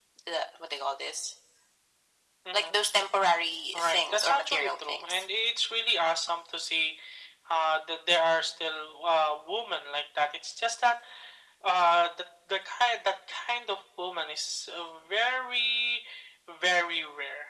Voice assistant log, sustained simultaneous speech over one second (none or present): present